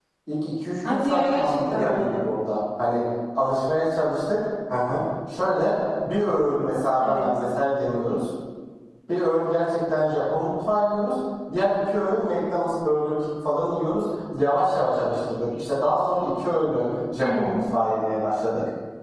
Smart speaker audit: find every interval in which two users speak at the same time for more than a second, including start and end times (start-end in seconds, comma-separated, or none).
0.9-2.2